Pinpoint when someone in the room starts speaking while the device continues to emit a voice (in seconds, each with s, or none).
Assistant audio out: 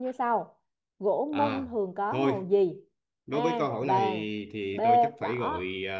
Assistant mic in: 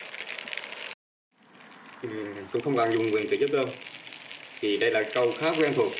2.0 s